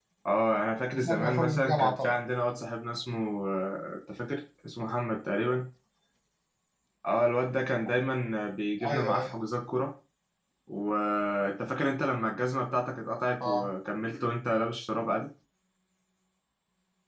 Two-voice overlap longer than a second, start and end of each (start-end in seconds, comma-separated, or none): 1.0-2.2